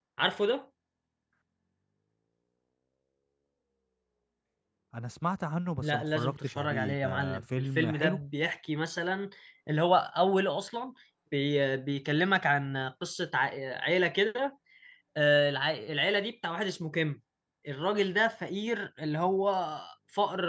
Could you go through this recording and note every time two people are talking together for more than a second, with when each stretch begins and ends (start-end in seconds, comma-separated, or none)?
5.8-8.2